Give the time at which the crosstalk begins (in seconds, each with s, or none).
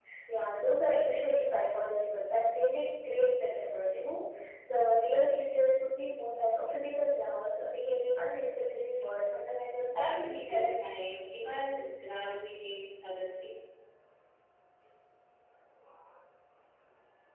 9.8 s